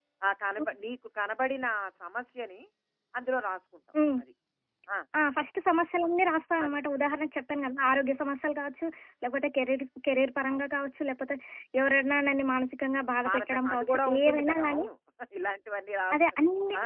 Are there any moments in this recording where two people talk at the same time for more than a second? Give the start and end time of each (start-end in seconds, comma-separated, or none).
13.3-14.8